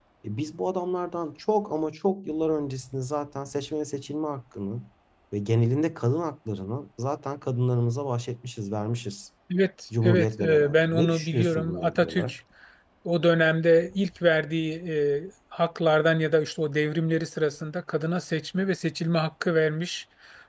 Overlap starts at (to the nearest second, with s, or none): 10 s